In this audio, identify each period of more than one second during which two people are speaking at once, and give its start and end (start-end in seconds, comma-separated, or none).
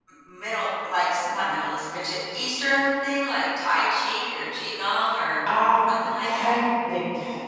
none